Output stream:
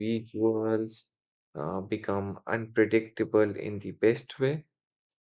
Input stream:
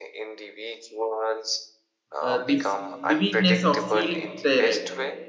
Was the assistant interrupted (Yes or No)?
Yes